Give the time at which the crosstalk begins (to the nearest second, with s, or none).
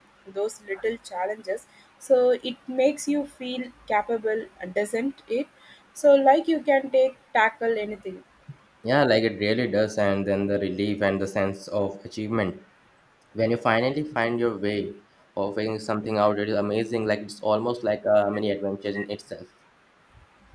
none